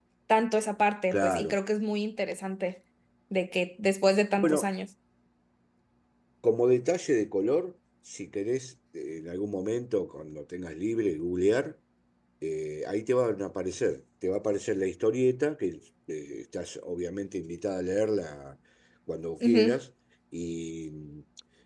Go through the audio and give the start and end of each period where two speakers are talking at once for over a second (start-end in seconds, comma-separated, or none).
none